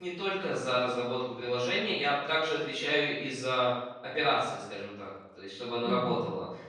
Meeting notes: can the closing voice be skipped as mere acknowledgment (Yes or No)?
Yes